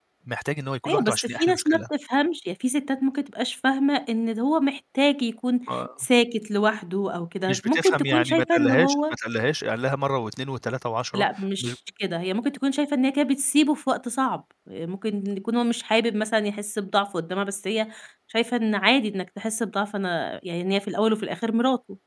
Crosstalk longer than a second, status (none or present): present